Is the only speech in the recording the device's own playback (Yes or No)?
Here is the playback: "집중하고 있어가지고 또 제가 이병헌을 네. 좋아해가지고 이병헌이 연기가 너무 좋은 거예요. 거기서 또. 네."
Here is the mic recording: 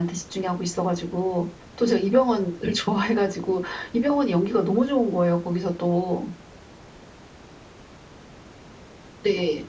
Yes